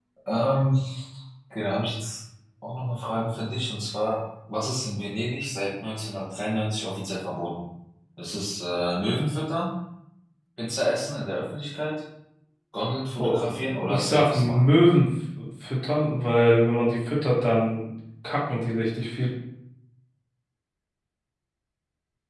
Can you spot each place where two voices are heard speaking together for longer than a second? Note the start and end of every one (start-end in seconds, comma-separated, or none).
13.2-14.7